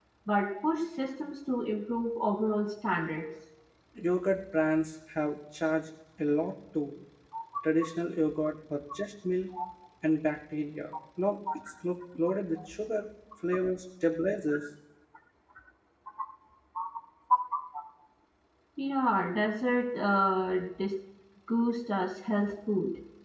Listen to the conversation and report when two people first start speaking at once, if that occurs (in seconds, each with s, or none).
none